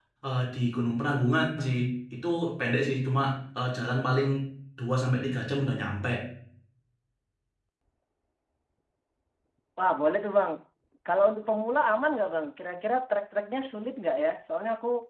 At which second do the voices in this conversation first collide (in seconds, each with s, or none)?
none